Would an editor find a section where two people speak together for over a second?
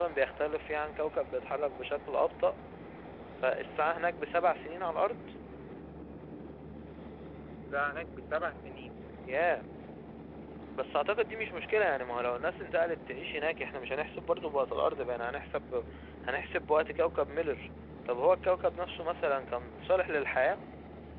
No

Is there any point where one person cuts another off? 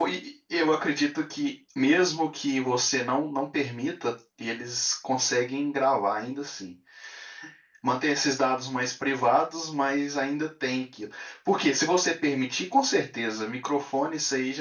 No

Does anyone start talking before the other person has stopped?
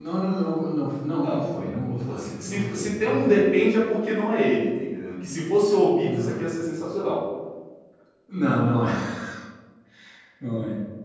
Yes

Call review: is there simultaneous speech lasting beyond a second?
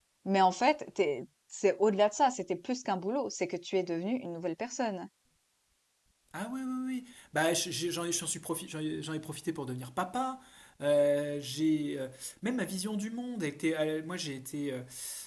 No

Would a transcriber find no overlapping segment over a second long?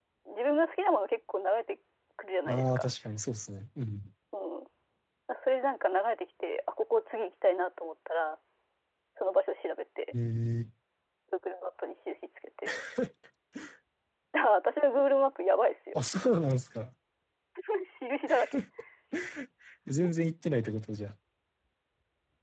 Yes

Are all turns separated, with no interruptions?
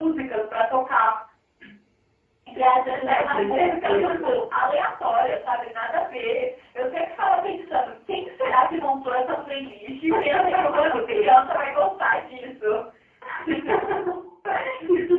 No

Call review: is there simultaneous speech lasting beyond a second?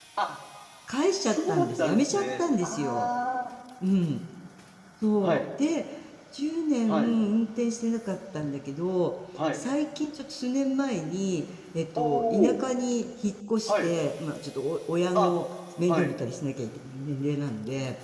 Yes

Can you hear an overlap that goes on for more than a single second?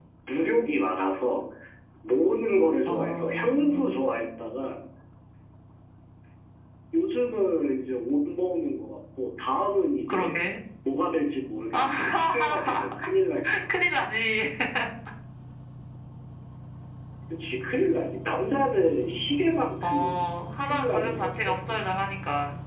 Yes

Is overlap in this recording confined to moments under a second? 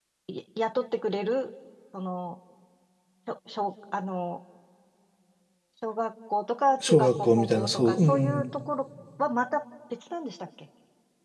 No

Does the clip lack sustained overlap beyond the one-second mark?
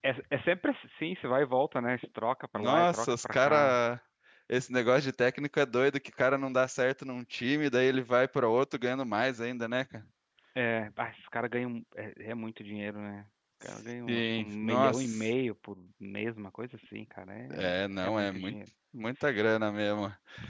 No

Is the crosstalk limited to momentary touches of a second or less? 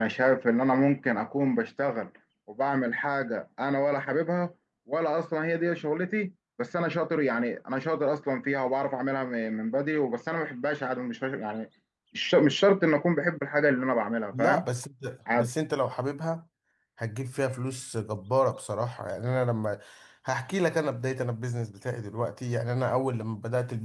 Yes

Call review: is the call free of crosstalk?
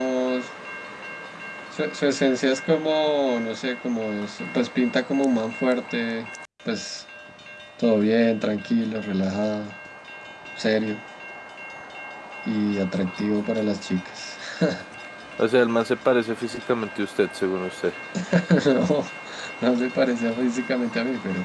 Yes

